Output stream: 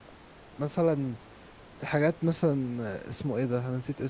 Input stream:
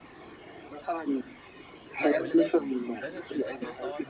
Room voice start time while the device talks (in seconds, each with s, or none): 2.0 s